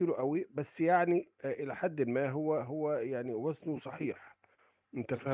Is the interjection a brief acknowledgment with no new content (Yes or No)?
No